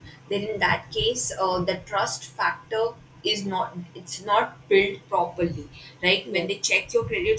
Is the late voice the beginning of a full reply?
No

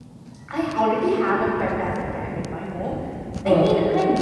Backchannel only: Yes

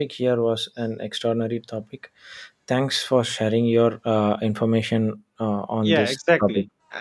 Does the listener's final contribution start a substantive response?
Yes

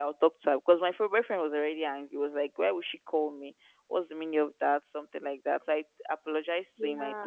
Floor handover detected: No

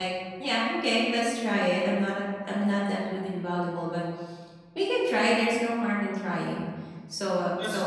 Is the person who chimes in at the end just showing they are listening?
Yes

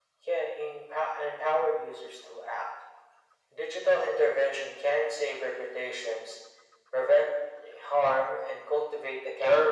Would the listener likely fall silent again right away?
No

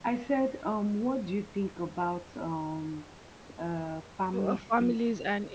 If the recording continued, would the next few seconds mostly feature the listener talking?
Yes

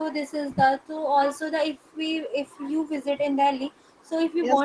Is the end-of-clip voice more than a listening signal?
Yes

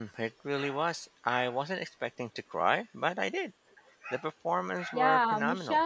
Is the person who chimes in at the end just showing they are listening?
No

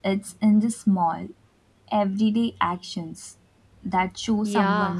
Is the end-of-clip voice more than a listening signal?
Yes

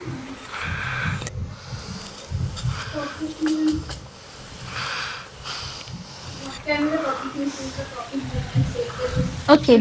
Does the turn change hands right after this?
Yes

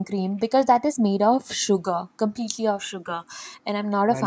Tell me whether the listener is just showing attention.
No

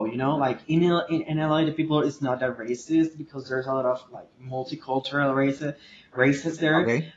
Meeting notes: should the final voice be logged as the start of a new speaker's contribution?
No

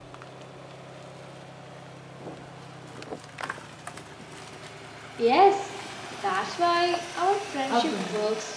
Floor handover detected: Yes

